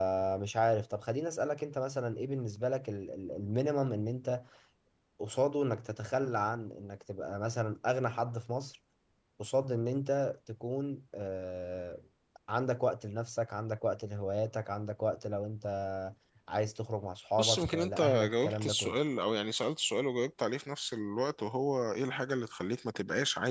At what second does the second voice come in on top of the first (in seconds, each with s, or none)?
17.4 s